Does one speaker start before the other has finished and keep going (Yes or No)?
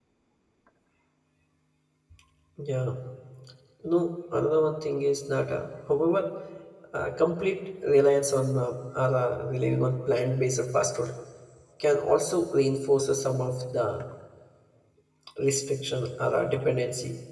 No